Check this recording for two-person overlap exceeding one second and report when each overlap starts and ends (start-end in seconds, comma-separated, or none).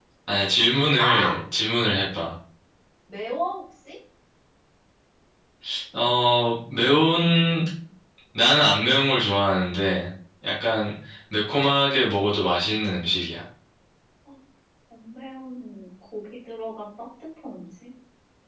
none